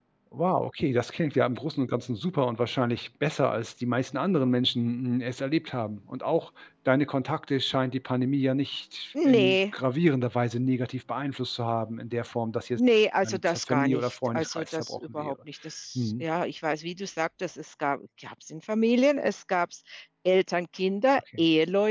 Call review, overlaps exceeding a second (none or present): present